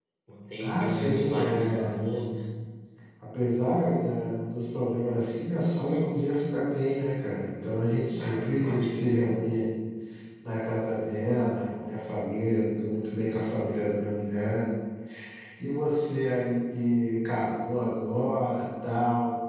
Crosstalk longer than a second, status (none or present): present